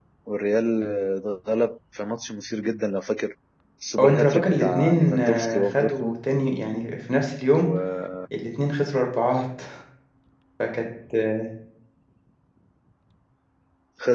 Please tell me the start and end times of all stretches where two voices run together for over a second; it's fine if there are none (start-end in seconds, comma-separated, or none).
4.0-6.2